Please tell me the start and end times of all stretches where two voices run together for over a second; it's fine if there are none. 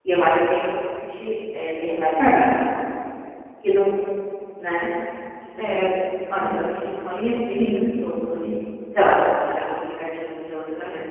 none

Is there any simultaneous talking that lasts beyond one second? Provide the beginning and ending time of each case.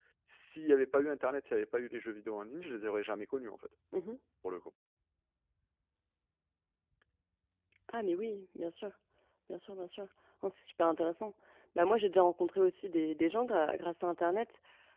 none

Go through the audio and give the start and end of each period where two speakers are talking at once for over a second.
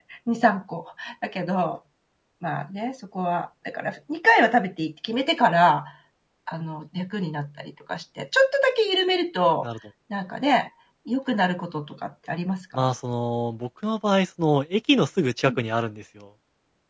none

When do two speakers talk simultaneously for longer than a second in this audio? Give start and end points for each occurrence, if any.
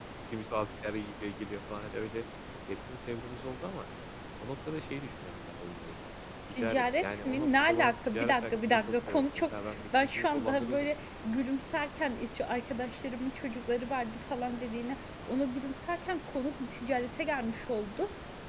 6.5-10.9

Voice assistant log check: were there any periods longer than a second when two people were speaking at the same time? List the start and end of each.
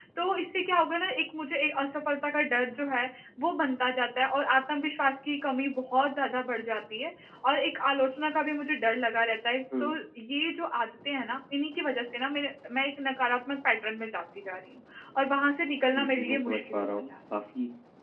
15.9-17.1

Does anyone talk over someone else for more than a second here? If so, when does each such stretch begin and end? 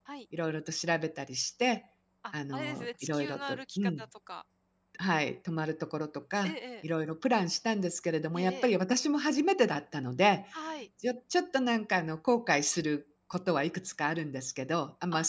2.5-4.0

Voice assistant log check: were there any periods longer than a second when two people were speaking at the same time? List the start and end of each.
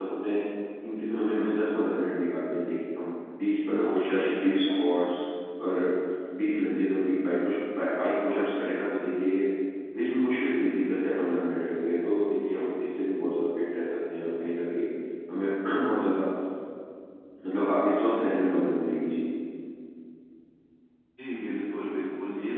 3.8-5.1

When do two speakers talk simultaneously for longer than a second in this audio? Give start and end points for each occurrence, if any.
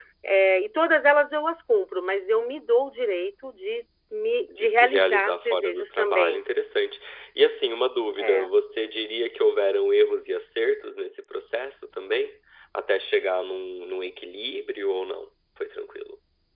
4.6-6.4

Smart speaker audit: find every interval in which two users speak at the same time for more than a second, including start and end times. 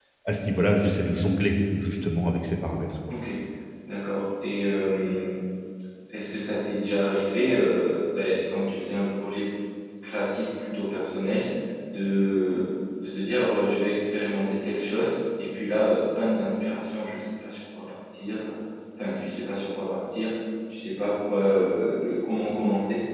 none

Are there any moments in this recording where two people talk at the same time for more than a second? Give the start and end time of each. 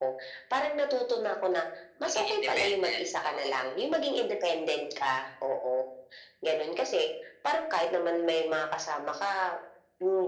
2.0-3.7

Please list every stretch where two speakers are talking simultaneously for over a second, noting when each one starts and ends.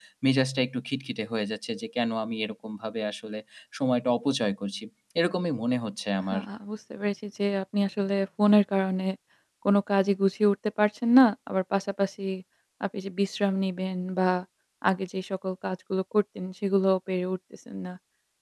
none

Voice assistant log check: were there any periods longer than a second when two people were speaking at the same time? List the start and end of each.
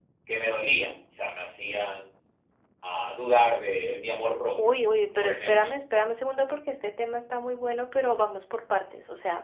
none

